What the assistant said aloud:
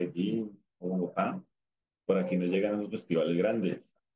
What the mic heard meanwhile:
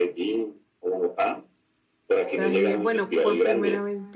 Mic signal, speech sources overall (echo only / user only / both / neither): both